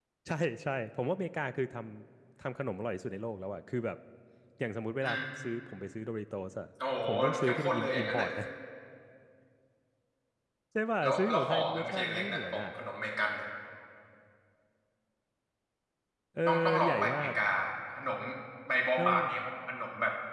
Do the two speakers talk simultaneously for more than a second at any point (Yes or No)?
Yes